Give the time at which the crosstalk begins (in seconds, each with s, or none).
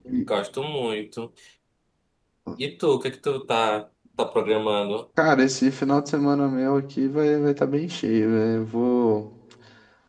none